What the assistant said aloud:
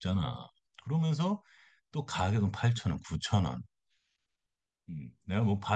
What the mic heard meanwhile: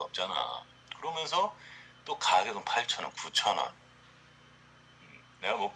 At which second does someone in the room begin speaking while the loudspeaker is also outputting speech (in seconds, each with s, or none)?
none